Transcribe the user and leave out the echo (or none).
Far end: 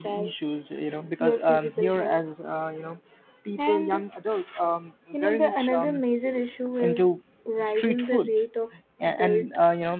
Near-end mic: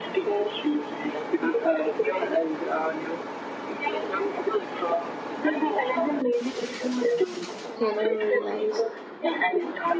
you know, realize.